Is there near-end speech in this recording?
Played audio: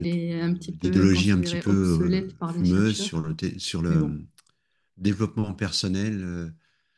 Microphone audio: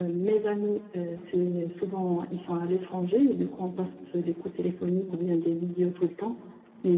Yes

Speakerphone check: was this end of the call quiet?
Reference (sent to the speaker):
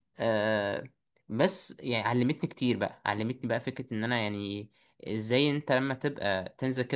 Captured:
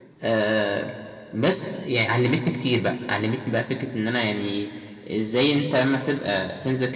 Yes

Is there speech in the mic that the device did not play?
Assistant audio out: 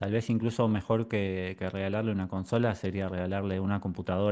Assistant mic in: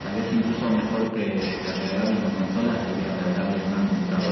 No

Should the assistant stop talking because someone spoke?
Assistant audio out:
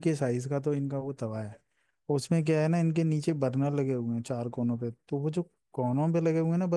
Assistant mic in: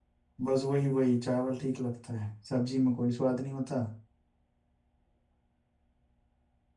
Yes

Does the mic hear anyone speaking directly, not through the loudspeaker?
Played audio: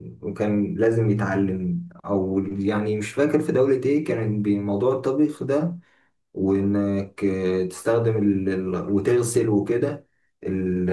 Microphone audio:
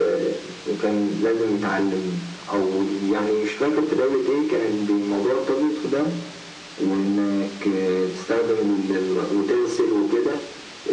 No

